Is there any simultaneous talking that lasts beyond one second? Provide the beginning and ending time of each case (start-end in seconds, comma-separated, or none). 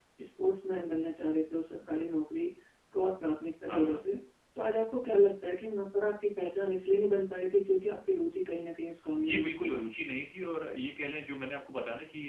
none